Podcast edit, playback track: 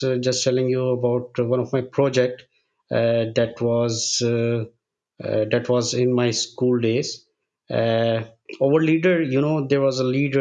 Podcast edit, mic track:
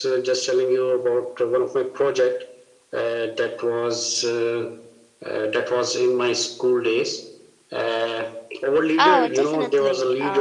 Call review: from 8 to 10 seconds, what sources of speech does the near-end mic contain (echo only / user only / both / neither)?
both